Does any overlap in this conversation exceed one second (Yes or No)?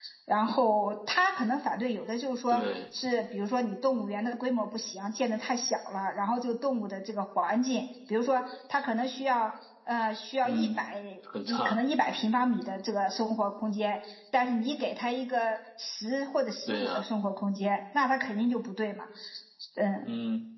No